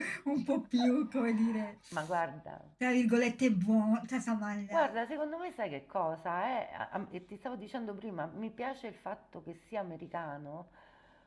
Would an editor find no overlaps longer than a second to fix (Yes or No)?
Yes